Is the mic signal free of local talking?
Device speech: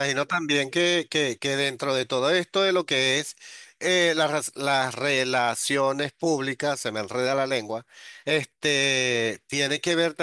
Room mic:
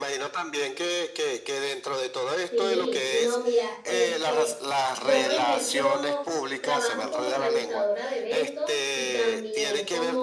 No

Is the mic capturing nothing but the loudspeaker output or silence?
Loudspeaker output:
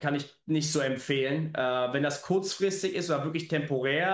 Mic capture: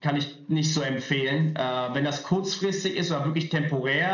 Yes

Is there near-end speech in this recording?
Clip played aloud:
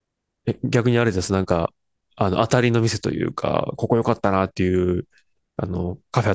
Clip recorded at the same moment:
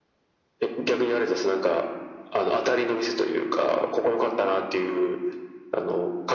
No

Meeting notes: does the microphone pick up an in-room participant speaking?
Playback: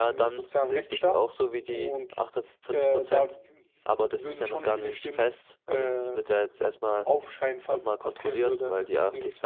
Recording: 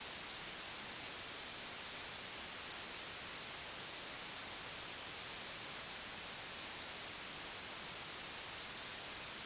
No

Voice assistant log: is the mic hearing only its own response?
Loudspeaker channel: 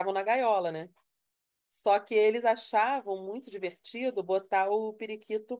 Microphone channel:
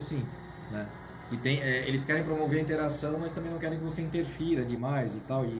No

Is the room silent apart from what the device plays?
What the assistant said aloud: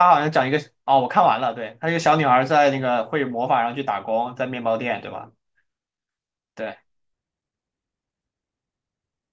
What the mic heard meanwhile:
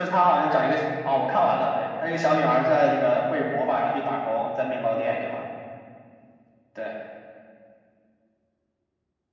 Yes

